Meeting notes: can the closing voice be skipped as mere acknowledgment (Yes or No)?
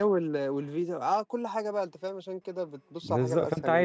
No